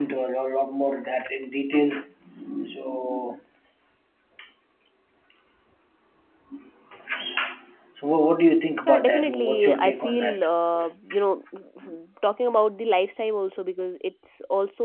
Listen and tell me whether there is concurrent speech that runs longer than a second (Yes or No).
Yes